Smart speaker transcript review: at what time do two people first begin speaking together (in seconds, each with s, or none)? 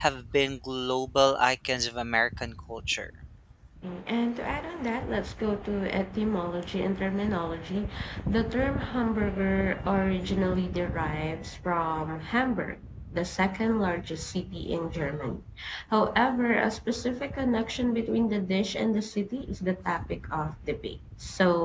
none